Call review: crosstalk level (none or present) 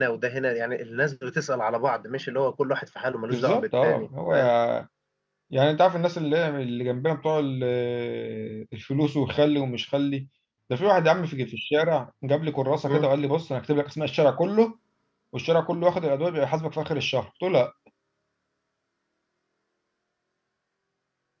present